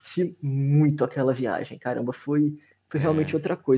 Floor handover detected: No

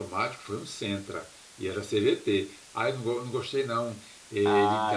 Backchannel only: No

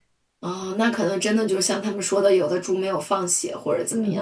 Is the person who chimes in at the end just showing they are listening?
No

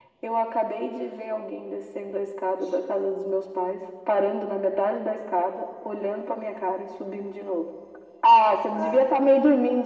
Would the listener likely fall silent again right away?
Yes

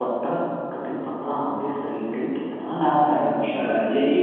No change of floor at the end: No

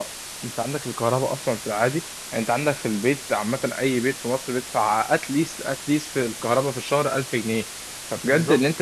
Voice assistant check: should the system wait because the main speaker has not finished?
Yes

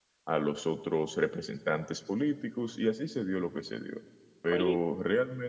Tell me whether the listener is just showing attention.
Yes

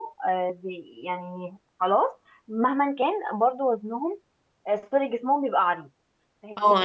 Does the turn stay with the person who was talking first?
No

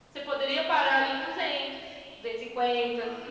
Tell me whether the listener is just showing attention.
No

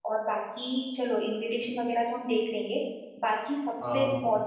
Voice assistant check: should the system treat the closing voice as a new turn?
No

